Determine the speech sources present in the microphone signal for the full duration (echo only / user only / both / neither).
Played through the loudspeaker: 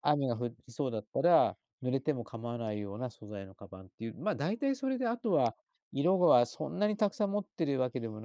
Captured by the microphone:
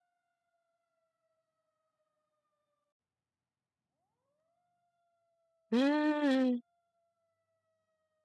user only